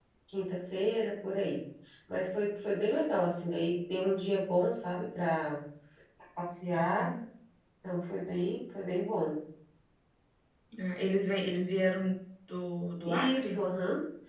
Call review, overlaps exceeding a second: none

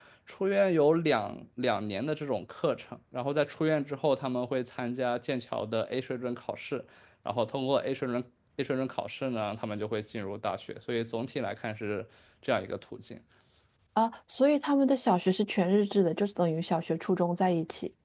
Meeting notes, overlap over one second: none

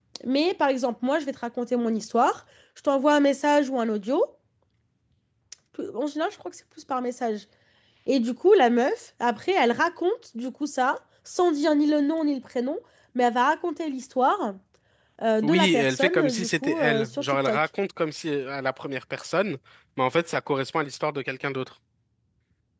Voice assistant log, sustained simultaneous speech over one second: present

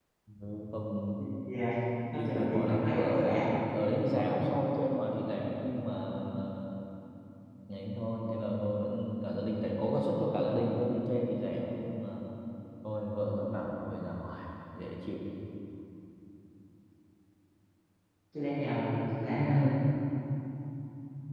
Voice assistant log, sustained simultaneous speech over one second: present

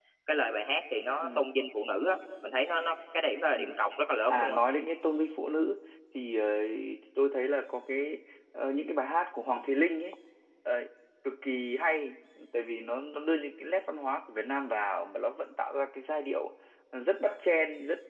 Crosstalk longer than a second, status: none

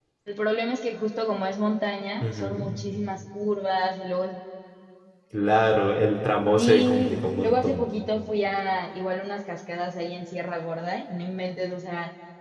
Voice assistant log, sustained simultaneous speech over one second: present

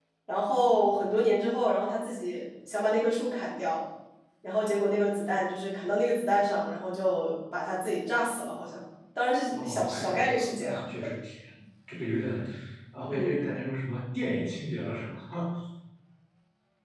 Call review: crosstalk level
present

